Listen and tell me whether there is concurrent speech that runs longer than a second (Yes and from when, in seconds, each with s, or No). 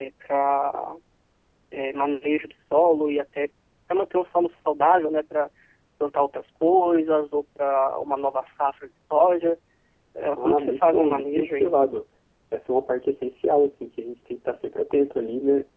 Yes, from 10.4 s